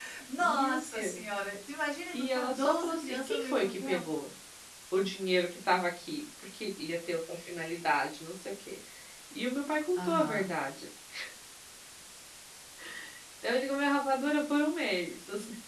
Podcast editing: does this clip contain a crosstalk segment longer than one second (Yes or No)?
Yes